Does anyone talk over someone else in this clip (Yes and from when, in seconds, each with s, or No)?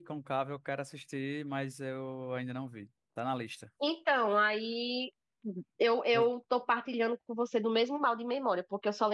No